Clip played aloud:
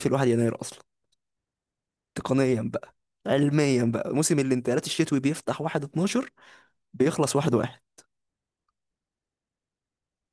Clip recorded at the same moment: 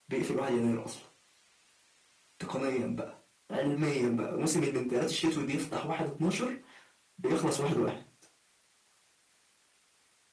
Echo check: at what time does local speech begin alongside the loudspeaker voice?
none

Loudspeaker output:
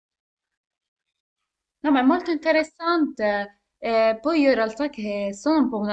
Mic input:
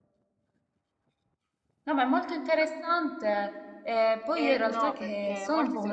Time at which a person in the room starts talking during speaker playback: 4 s

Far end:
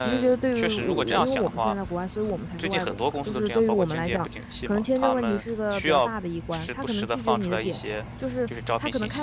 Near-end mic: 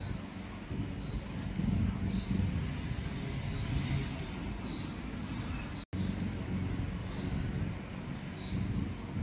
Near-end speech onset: none

